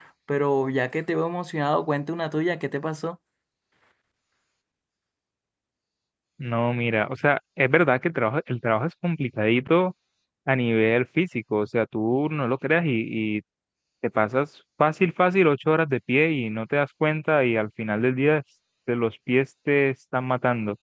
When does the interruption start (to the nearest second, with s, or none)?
none